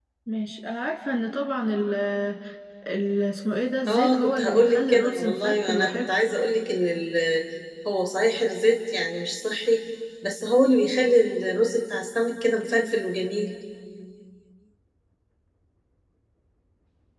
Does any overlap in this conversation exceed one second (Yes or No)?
Yes